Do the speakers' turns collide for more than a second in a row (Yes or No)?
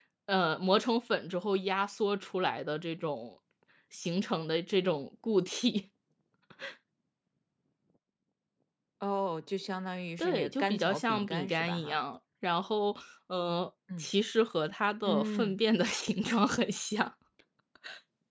Yes